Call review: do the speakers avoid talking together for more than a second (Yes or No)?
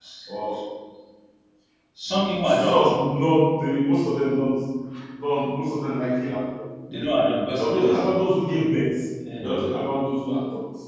Yes